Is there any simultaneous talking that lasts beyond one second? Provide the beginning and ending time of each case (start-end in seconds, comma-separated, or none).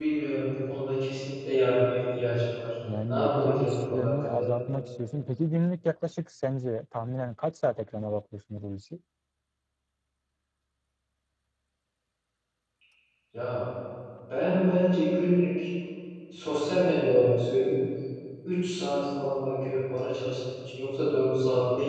3.1-4.4